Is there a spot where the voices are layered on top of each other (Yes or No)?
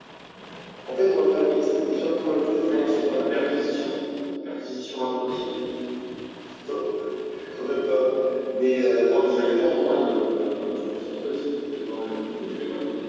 Yes